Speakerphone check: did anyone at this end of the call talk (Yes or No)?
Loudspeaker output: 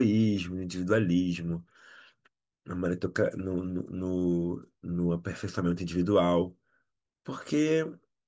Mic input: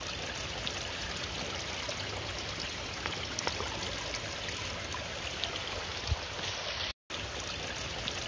No